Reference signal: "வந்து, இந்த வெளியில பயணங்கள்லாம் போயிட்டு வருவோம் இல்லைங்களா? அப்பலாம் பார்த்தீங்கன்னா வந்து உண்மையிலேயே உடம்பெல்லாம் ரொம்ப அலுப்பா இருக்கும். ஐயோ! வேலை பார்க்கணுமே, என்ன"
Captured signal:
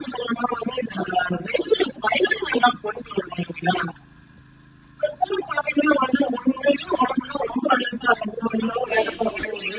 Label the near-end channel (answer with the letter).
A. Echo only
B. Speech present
B